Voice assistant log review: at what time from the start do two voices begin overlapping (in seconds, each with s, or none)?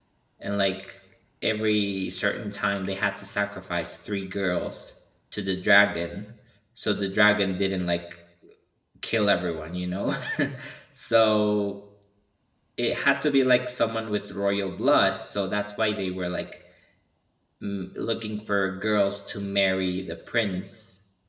none